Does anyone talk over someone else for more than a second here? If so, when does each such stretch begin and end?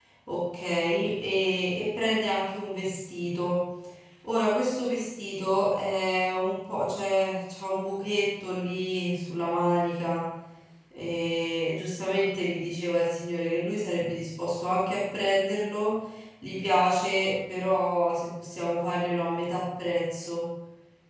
none

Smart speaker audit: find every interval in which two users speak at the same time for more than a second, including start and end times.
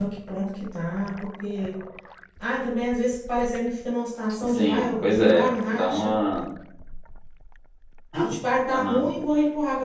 4.4-6.1

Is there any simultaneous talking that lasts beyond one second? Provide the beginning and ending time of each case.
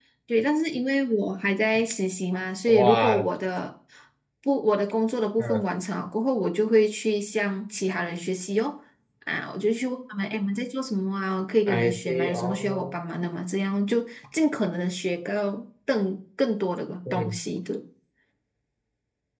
11.7-12.9

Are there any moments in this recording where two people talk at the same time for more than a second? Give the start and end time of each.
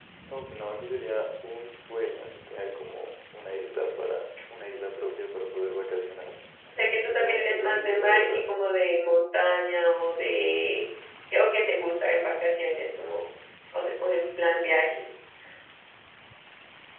7.1-8.5

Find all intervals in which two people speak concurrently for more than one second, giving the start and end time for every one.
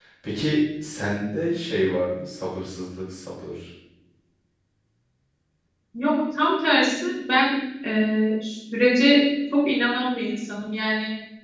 none

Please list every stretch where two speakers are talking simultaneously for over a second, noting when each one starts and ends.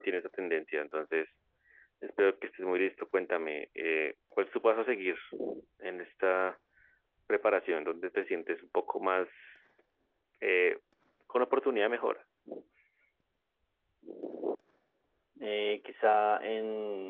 none

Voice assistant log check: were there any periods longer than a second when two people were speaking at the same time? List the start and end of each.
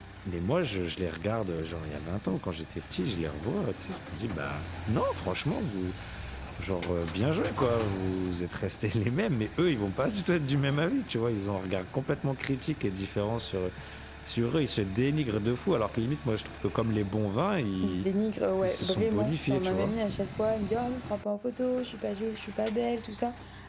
18.6-19.9

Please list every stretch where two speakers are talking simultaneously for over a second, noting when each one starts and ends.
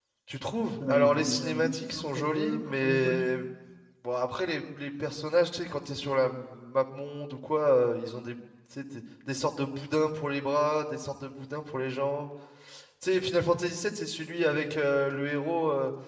0.9-3.2

